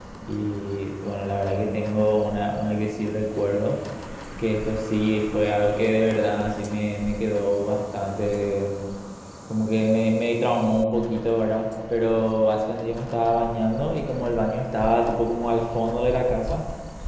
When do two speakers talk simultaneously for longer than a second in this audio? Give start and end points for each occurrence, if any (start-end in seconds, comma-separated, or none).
none